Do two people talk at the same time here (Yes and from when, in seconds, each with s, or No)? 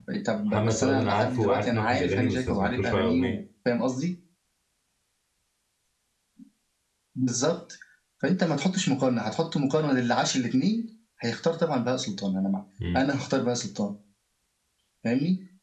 Yes, from 0.5 s